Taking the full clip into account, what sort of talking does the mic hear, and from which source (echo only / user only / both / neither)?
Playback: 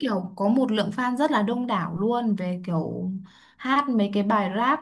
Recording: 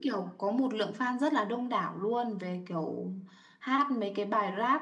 echo only